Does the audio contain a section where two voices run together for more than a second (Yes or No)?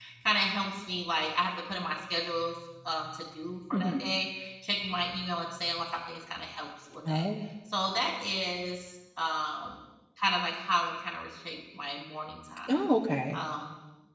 No